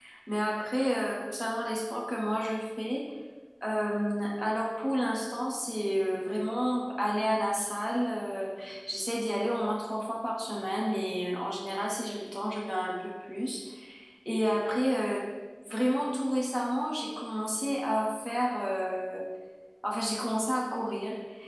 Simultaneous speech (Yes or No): No